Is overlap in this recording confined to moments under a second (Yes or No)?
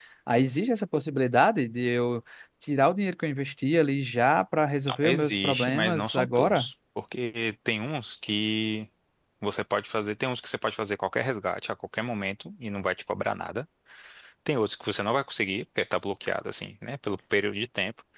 No